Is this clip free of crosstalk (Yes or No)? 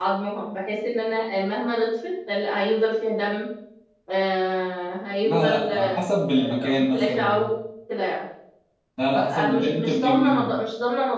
No